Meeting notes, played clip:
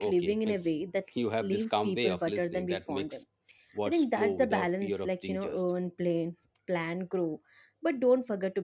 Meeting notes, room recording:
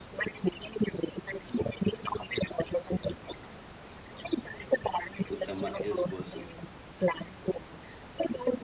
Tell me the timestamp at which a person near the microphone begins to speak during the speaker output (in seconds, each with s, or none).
5.3 s